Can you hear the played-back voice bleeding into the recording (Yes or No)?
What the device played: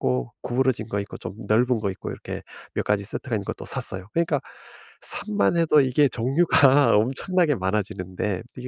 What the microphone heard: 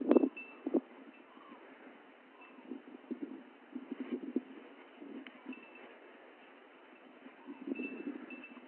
No